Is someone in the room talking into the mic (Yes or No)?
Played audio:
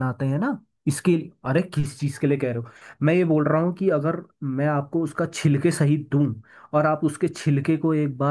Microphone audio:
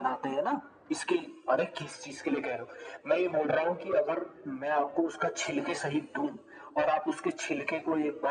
No